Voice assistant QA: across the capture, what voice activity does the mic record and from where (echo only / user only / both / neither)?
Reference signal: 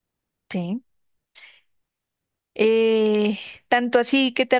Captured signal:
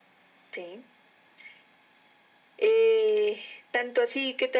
echo only